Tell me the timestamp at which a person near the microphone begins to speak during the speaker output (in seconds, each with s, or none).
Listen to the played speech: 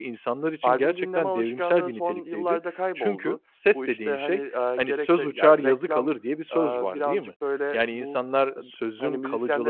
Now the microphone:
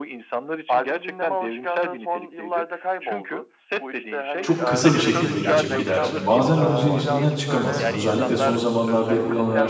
4.4 s